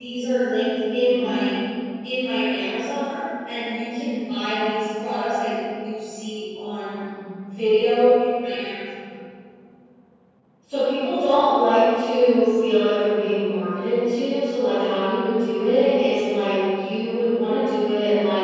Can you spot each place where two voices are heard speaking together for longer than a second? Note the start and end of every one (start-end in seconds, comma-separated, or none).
none